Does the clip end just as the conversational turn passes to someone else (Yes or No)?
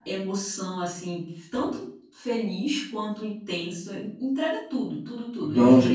Yes